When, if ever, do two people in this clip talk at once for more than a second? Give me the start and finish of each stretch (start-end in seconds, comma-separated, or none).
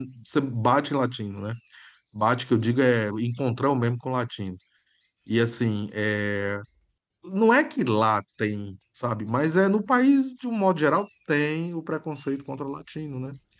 none